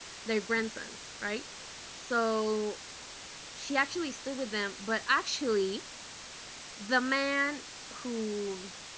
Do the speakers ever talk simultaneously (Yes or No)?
No